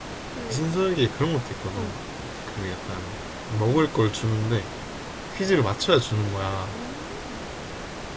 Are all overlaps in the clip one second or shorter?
Yes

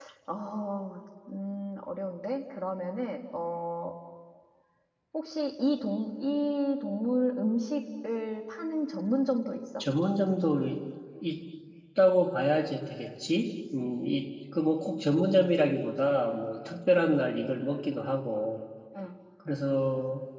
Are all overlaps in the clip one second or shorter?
Yes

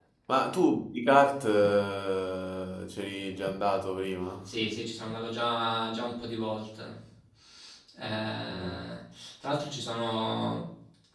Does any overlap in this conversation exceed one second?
No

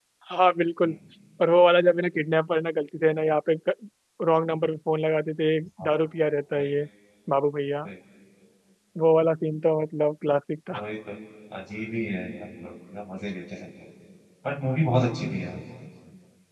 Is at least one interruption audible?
No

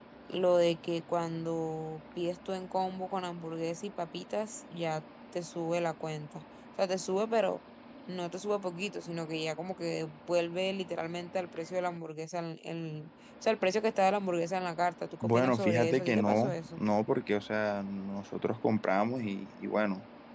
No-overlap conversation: No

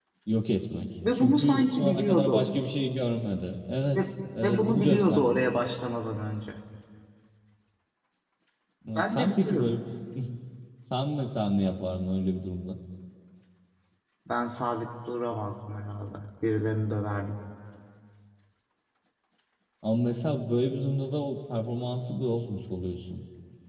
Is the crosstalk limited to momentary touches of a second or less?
No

